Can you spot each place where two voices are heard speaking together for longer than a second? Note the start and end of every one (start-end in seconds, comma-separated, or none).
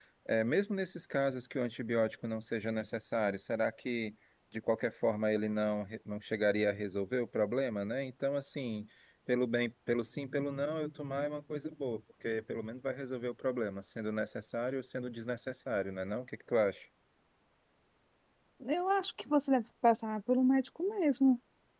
none